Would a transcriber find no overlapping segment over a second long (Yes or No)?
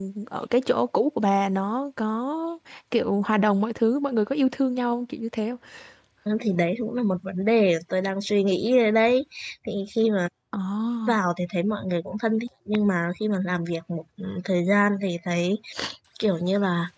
Yes